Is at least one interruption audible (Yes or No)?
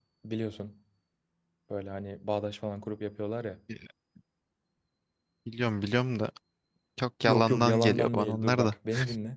Yes